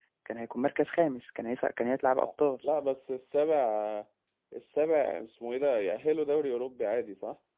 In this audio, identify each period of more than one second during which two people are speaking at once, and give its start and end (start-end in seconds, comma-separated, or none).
none